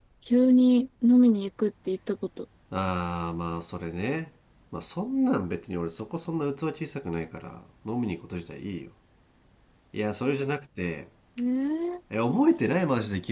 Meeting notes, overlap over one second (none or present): none